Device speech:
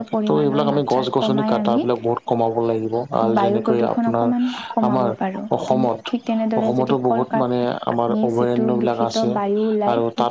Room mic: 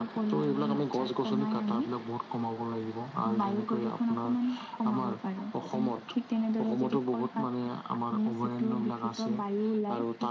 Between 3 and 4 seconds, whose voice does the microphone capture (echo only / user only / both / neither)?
echo only